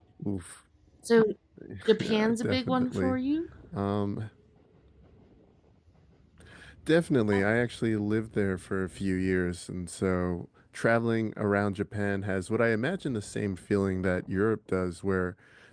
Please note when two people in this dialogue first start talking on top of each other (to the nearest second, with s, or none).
2 s